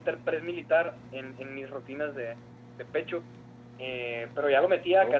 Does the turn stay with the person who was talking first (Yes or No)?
Yes